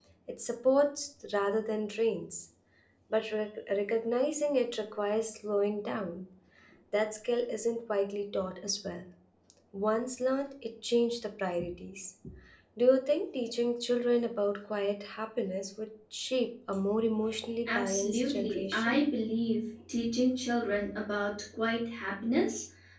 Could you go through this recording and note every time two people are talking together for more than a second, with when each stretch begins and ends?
17.7-19.0

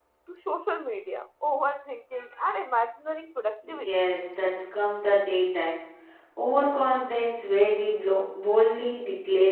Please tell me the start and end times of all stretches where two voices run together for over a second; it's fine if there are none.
none

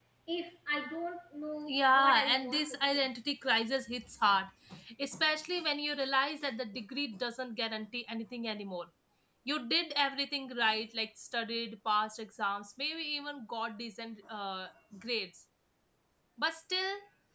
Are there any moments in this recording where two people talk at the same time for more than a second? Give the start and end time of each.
1.7-3.1

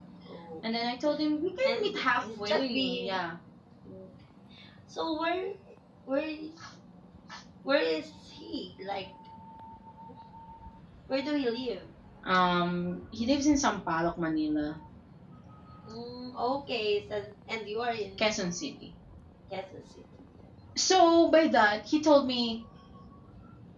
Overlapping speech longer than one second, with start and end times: 1.6-3.2

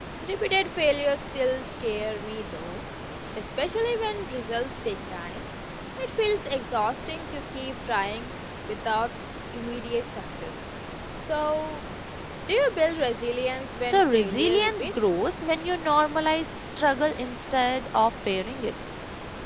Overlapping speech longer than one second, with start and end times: 13.8-15.1

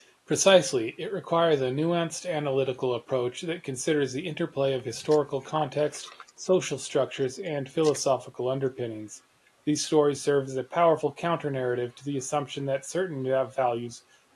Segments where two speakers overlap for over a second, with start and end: none

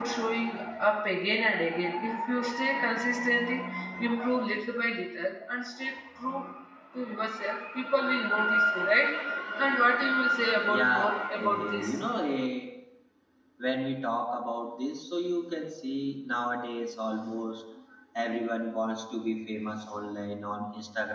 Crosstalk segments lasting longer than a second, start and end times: 10.7-12.0

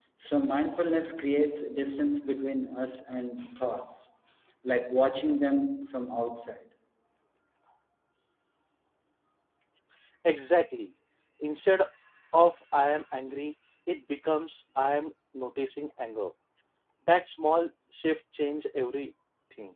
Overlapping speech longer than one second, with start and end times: none

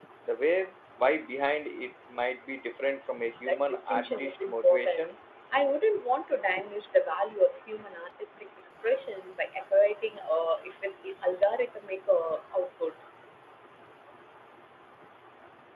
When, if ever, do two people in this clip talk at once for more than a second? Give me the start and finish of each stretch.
3.4-5.0

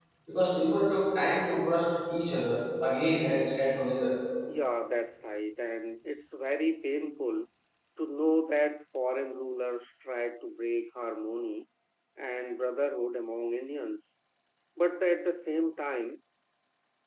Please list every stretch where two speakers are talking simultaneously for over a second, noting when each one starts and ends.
none

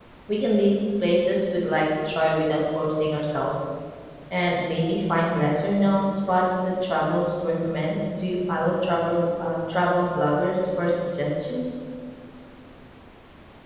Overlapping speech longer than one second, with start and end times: none

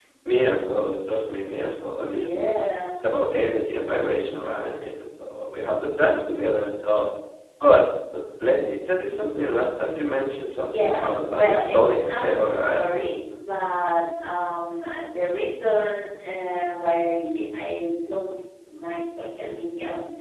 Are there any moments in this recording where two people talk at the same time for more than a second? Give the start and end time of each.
10.6-12.8

